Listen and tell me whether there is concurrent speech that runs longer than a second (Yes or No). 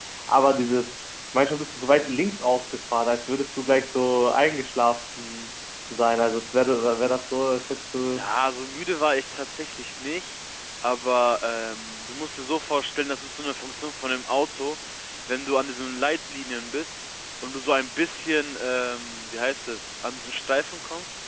No